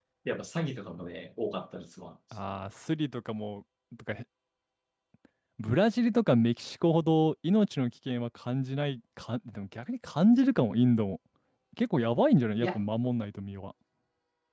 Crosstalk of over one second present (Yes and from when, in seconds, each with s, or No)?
No